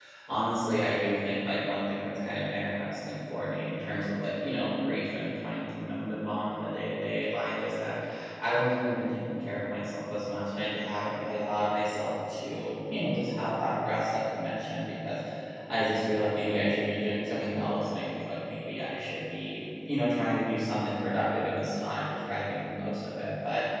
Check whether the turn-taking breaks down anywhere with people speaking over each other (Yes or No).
No